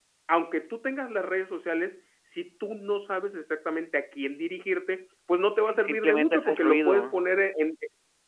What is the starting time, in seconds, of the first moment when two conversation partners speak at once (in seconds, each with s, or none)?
5.6 s